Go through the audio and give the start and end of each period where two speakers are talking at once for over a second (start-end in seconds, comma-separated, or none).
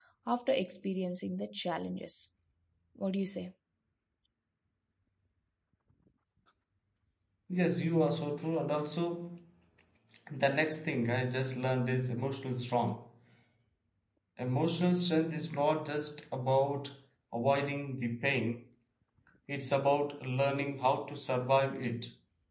none